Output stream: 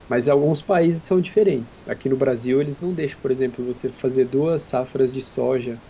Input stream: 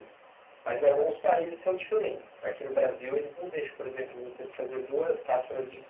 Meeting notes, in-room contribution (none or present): none